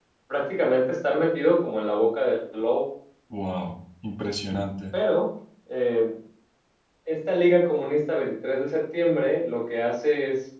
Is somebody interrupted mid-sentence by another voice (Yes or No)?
No